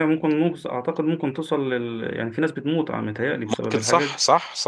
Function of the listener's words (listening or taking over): taking over